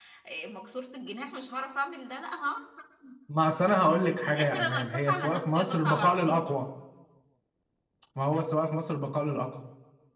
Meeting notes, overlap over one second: present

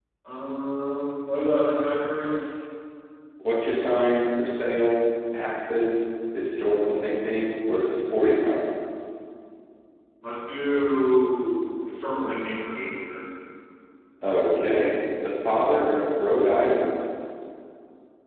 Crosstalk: none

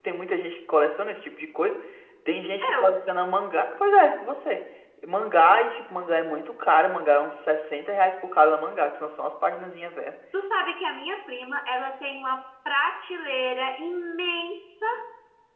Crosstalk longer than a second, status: none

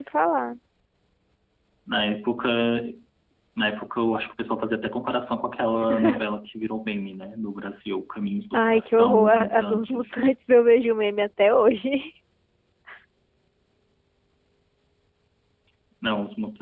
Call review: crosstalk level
present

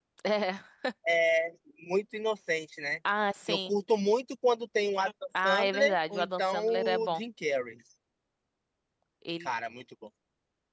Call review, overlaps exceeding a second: present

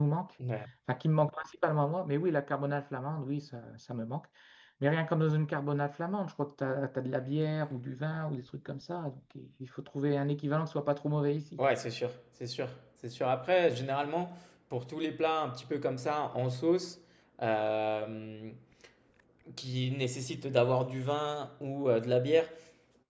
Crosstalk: none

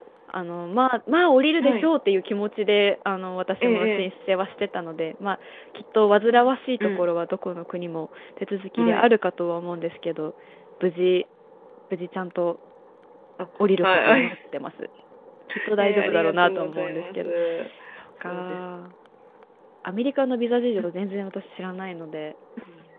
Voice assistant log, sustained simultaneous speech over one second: present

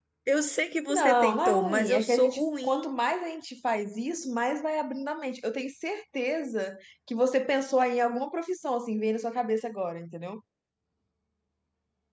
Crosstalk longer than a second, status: present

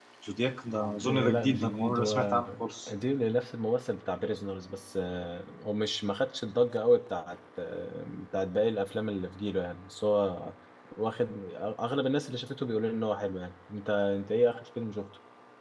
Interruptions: present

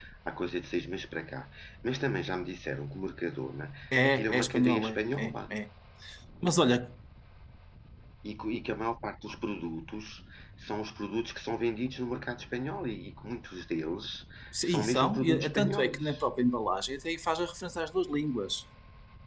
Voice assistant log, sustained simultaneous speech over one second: present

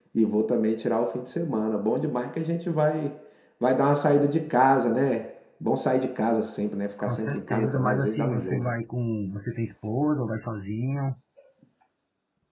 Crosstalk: present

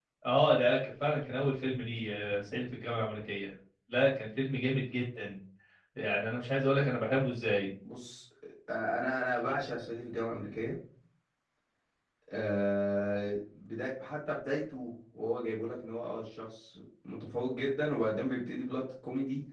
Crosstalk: none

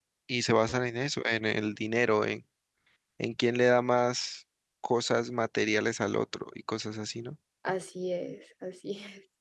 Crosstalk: none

